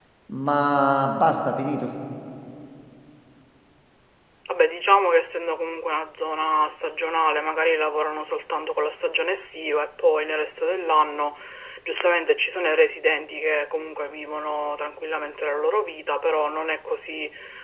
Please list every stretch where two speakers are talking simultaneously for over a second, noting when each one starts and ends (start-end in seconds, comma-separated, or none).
none